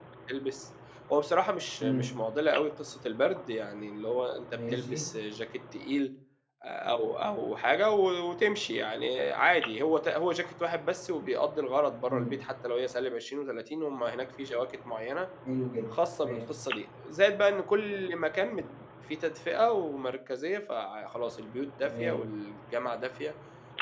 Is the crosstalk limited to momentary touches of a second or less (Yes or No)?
Yes